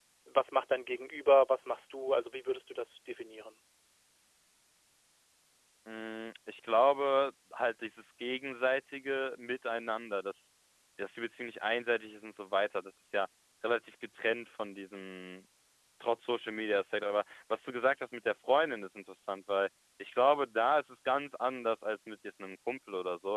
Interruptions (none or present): none